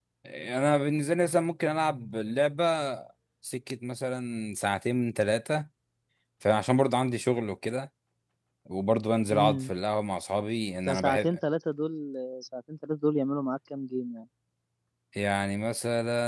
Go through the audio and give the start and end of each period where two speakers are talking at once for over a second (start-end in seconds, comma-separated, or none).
none